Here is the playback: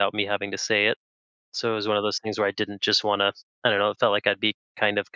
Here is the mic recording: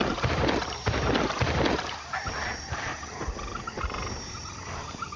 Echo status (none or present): none